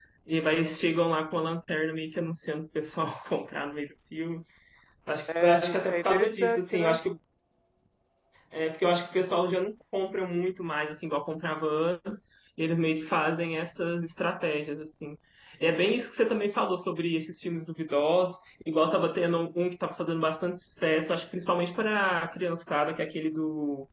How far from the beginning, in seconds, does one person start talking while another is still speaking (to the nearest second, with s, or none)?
5 s